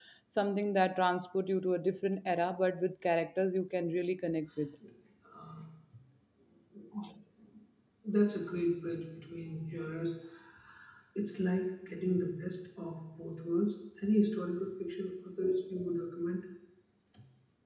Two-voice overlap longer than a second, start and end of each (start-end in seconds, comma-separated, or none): none